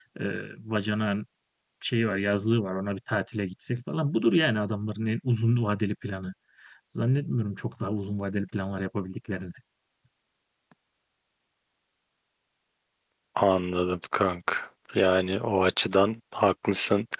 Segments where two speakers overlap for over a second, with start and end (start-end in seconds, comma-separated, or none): none